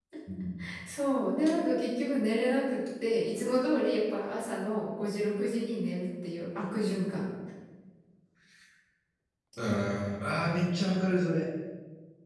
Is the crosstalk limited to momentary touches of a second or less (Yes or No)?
Yes